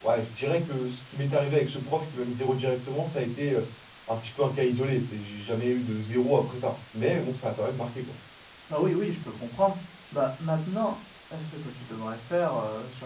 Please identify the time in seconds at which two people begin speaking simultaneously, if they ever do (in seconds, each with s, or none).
none